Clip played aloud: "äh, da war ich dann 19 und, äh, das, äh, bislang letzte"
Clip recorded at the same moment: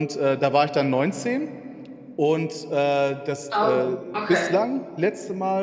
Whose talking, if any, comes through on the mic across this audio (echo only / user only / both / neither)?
both